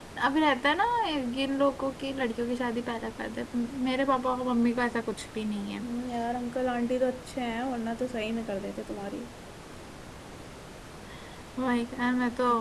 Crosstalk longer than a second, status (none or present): none